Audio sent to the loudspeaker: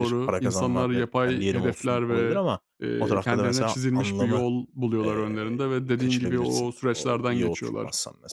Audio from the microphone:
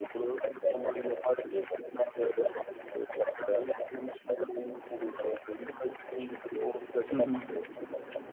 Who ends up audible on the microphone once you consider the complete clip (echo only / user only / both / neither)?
both